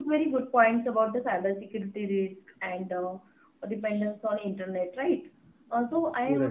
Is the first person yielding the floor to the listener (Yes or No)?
No